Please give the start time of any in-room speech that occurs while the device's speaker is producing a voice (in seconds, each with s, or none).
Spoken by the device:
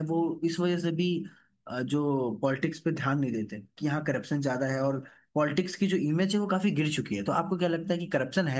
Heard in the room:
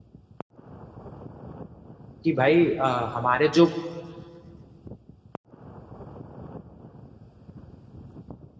2.2 s